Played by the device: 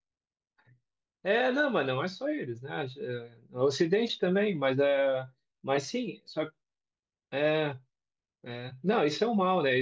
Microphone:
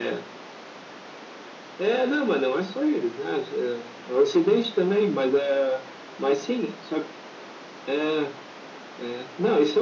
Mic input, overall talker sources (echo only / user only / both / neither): echo only